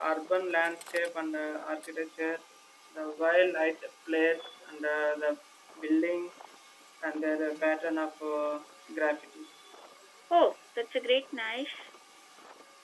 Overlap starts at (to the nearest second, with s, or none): none